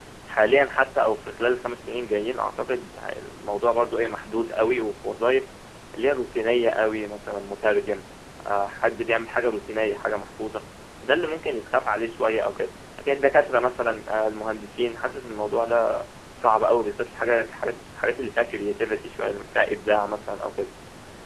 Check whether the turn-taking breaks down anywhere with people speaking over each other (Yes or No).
No